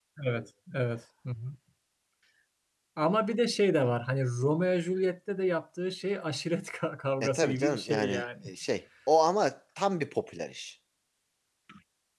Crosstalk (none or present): present